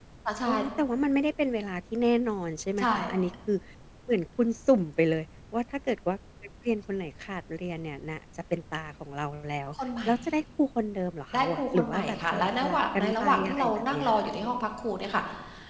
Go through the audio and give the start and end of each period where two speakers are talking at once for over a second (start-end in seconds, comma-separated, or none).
11.3-14.3